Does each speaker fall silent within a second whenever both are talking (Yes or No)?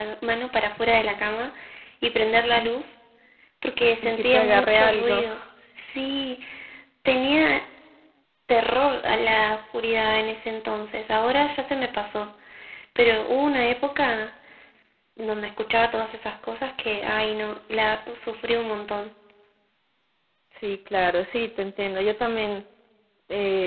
No